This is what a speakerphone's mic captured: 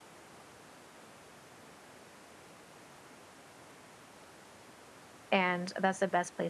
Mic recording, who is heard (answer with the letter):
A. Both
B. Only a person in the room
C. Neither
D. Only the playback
B